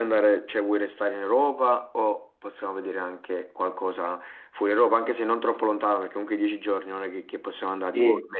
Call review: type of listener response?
taking over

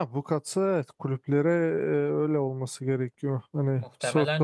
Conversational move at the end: taking over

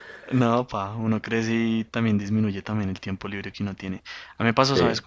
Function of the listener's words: listening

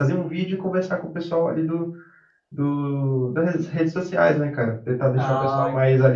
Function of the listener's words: listening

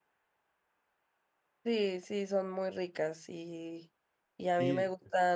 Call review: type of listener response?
listening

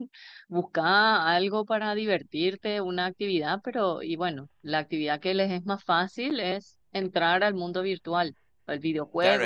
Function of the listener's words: taking over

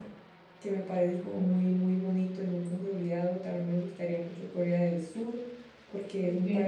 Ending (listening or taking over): listening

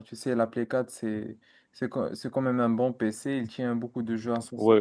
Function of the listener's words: taking over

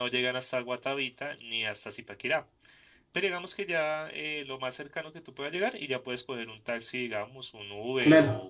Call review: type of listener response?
taking over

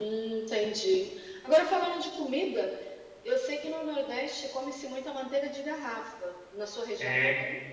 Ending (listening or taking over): taking over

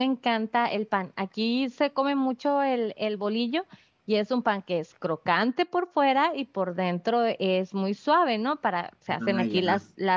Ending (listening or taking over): listening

